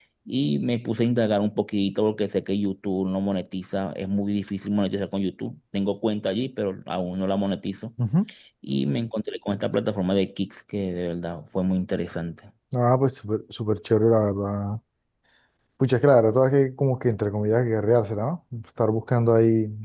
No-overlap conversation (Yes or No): Yes